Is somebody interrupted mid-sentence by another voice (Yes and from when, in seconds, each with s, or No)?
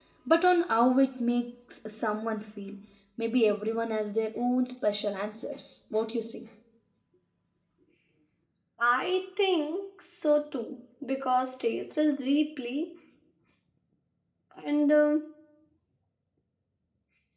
No